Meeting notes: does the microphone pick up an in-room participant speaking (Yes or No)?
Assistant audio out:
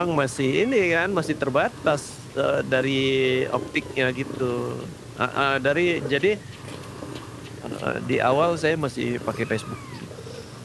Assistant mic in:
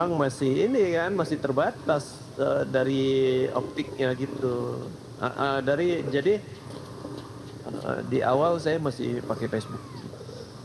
No